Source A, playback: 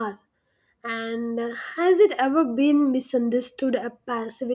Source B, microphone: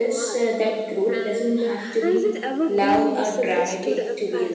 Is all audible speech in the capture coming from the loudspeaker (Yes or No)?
No